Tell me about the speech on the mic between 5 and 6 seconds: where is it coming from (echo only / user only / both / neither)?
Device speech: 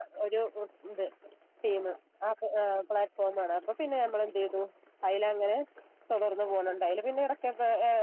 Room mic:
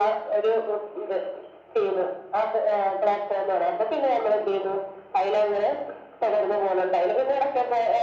echo only